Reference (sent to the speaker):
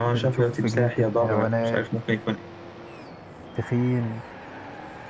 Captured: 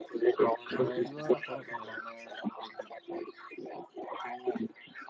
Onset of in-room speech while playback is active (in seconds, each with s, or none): 0.7 s